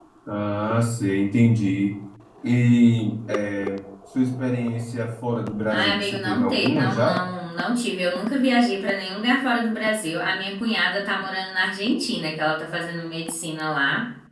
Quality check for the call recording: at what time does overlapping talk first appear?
6 s

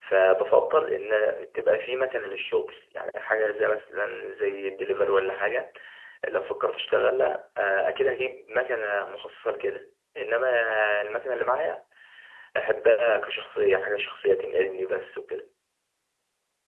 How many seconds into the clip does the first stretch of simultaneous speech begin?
none

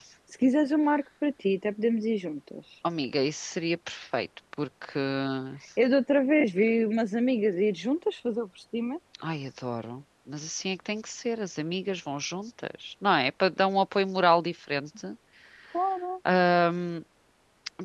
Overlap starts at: none

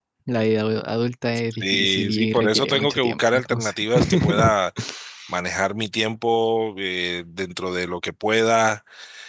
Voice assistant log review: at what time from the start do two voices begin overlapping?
2 s

